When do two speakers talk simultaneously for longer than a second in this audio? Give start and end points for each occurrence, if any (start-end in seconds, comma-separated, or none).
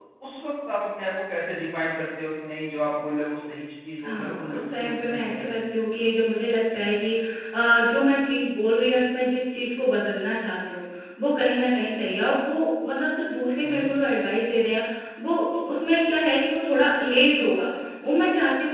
4.0-5.5